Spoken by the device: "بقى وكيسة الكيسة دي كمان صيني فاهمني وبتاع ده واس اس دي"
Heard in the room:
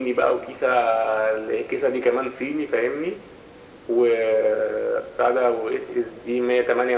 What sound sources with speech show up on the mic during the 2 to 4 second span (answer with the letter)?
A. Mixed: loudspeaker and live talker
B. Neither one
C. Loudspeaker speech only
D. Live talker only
C